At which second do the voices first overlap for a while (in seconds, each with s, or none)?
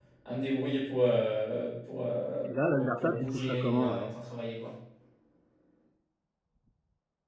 2.5 s